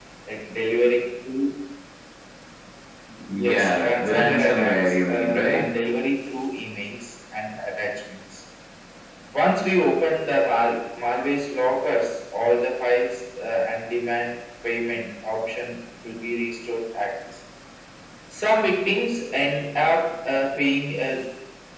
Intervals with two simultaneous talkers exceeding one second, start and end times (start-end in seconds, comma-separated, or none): 3.5-5.7